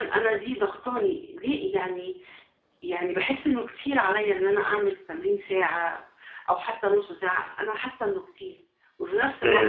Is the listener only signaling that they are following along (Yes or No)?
Yes